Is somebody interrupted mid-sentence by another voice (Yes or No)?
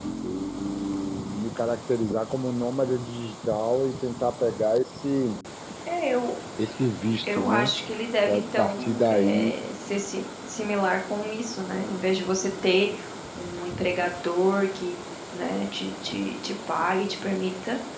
Yes